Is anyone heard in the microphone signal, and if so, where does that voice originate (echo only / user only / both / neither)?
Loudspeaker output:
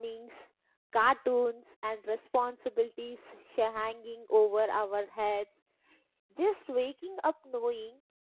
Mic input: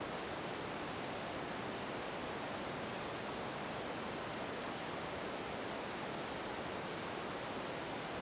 neither